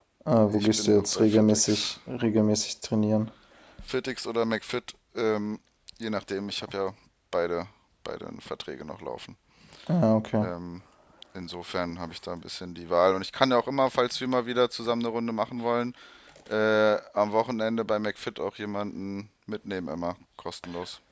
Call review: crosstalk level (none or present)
present